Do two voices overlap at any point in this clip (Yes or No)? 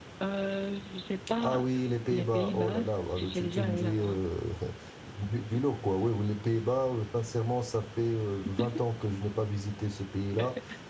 Yes